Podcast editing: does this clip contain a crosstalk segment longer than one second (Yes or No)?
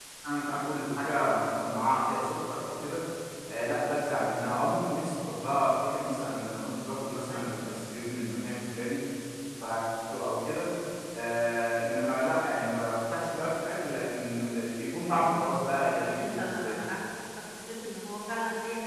Yes